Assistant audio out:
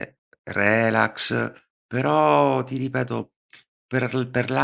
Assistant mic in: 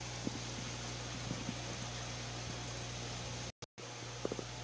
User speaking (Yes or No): No